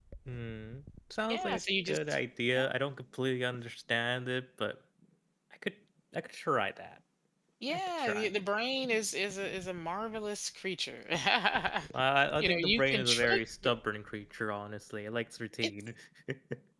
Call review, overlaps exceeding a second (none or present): present